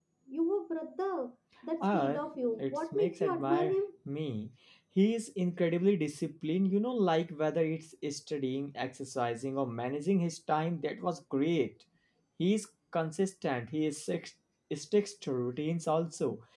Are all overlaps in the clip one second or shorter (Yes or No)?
No